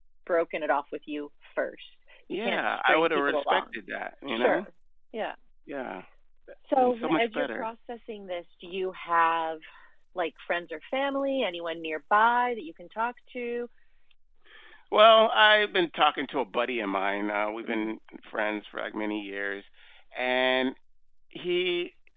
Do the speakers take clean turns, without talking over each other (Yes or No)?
No